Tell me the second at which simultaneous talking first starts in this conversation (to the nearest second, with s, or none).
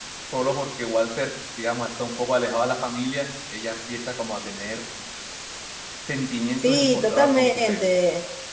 7 s